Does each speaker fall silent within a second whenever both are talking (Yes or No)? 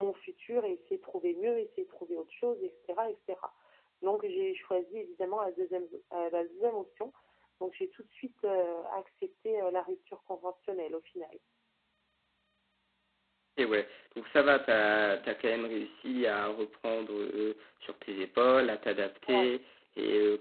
Yes